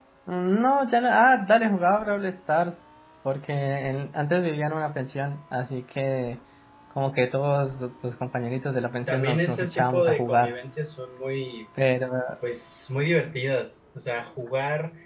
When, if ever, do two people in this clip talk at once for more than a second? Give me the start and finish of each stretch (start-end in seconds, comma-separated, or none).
9.1-10.6